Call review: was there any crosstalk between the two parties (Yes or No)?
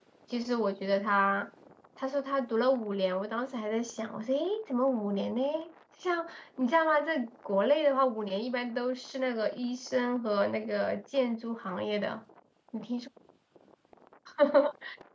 No